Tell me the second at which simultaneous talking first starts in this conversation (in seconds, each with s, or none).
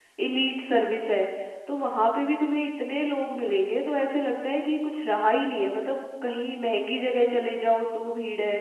none